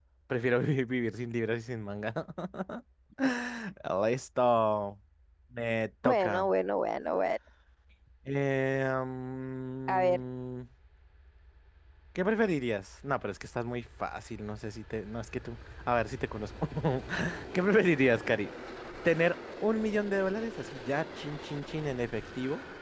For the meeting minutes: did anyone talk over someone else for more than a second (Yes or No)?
No